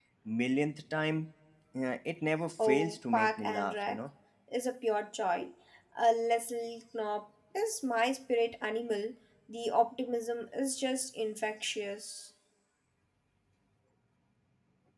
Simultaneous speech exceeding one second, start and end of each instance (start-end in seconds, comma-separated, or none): 2.6-4.0